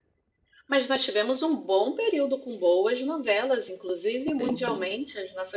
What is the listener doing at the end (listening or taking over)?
listening